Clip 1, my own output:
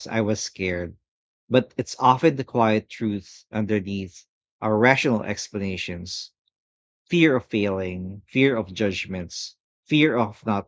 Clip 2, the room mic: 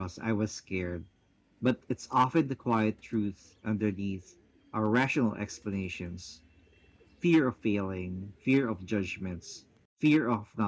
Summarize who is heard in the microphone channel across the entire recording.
echo only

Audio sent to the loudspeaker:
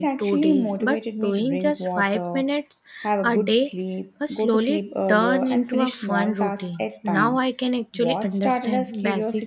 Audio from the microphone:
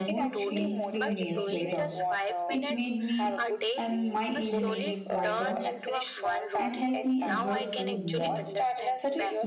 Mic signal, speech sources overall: both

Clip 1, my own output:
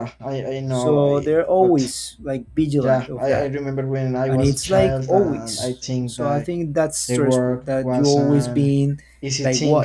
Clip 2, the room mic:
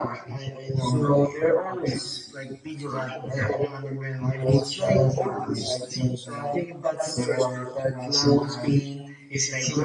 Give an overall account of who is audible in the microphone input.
echo only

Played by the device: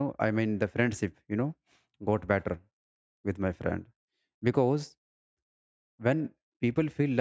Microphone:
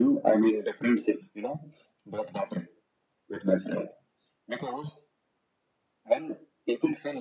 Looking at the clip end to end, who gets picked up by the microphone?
echo only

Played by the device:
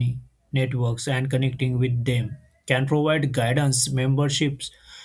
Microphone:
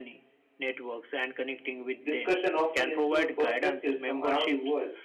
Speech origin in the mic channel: both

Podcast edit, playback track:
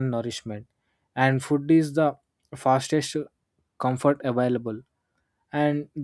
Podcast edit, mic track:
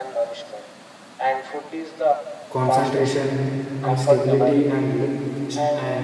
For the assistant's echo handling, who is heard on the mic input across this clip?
both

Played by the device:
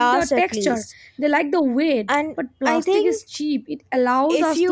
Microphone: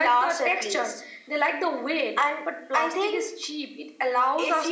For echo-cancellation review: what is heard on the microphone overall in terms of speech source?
echo only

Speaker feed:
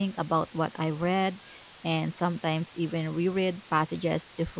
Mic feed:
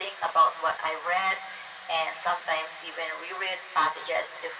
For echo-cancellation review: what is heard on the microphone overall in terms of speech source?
echo only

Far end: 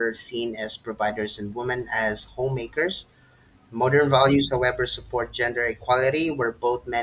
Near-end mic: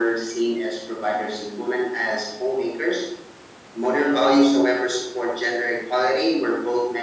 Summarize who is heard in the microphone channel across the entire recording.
echo only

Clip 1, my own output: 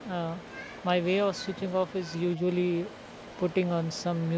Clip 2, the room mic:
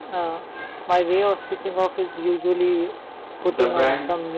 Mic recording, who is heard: both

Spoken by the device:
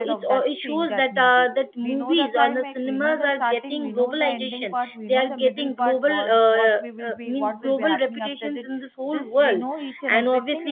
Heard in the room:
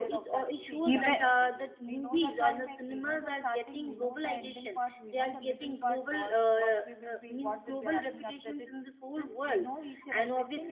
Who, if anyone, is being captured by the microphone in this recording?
both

